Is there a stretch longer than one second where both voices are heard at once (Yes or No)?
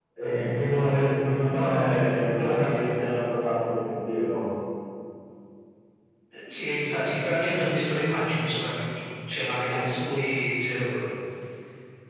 Yes